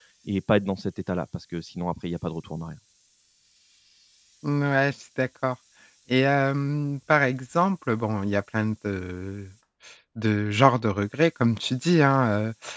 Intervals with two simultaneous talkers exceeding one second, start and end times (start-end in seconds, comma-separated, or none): none